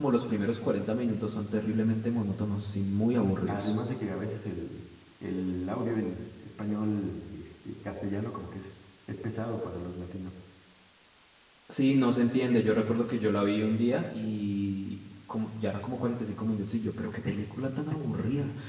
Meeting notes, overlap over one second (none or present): none